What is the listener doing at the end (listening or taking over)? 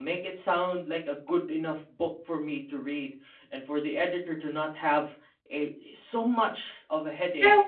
taking over